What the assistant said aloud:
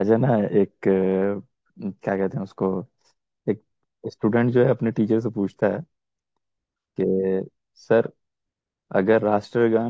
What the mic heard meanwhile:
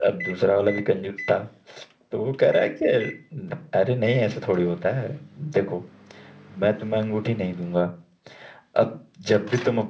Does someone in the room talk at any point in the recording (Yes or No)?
Yes